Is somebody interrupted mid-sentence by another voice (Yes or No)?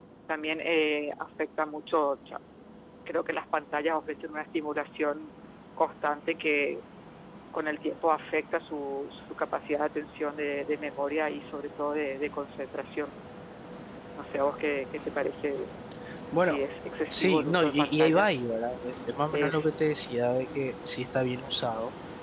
Yes